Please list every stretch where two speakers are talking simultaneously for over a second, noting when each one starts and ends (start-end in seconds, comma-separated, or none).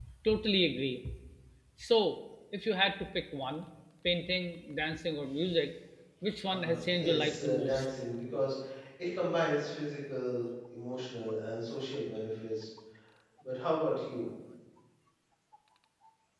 6.5-7.8